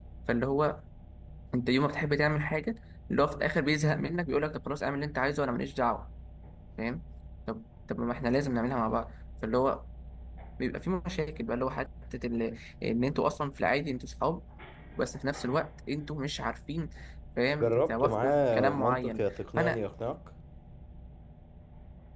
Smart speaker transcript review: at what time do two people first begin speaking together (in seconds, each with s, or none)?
17.6 s